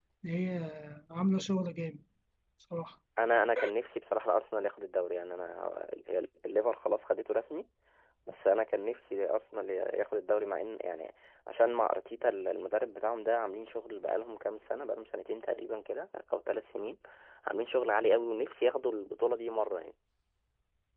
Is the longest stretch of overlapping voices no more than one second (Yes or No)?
Yes